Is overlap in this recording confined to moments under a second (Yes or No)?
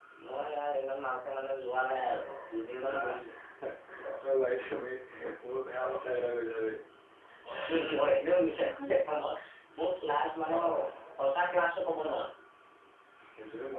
Yes